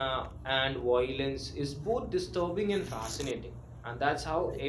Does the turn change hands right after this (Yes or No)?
Yes